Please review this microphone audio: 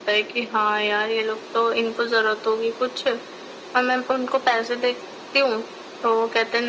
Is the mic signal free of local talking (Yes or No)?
Yes